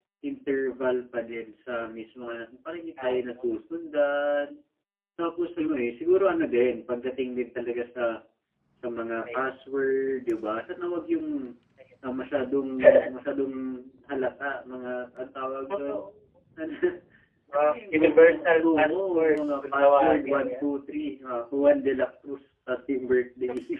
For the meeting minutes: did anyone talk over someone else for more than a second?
Yes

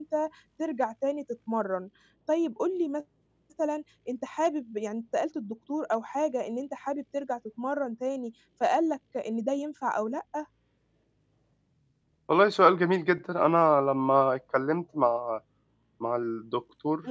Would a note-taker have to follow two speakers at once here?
No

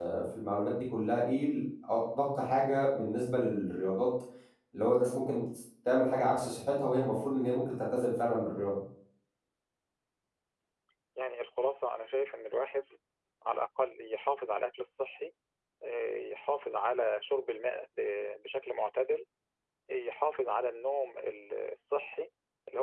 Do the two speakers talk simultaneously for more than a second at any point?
No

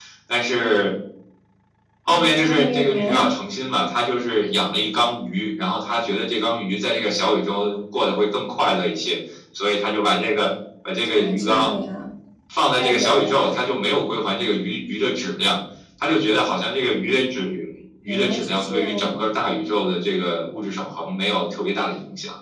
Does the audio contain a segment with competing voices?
Yes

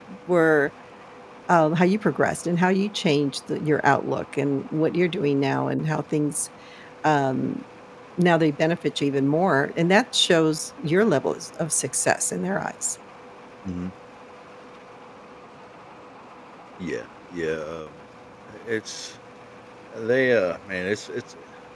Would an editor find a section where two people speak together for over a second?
No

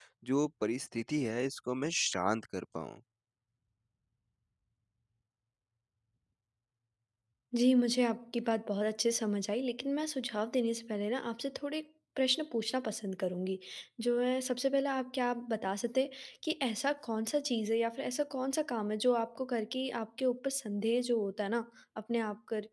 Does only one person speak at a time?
Yes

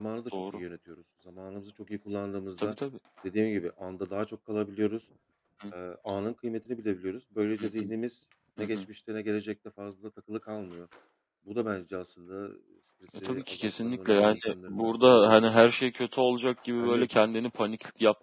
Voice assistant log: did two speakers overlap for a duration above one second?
Yes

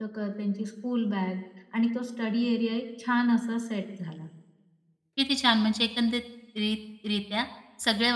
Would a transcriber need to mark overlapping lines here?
No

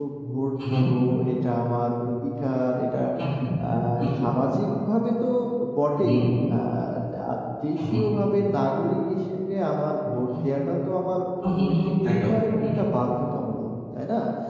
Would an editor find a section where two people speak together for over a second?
Yes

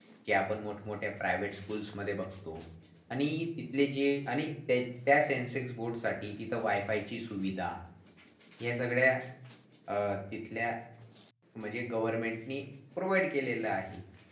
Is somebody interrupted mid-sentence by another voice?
No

